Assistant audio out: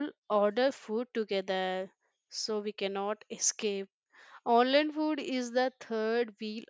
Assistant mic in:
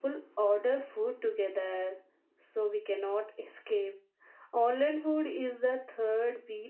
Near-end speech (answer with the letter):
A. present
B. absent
B